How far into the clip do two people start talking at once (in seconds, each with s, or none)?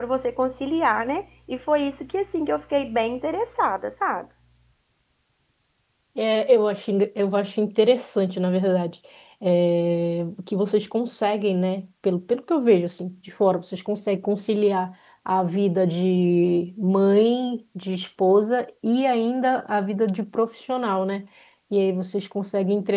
none